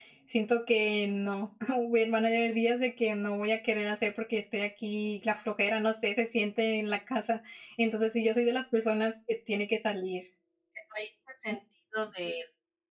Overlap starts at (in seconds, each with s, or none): none